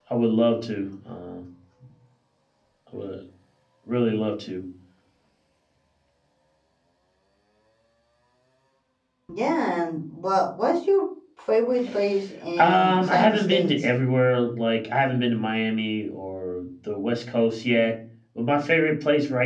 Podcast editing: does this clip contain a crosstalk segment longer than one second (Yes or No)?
Yes